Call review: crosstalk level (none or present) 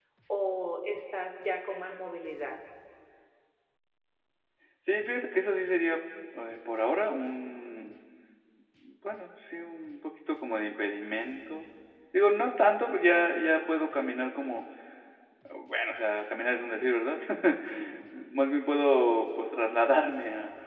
none